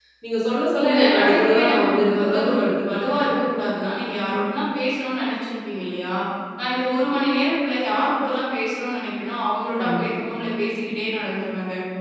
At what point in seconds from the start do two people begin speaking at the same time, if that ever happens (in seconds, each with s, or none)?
0.8 s